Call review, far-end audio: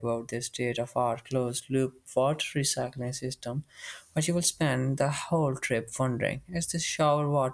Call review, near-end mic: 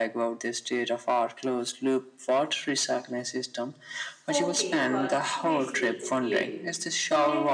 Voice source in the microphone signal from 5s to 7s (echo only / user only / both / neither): both